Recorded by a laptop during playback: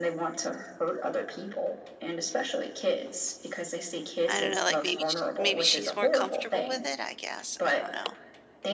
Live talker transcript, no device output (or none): I don't know, like, maybe sh maybe she's more comfortable with it, I guess, I don't know.